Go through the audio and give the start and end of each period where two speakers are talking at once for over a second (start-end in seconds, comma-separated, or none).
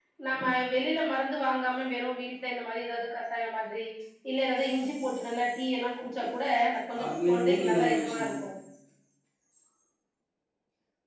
7.0-8.2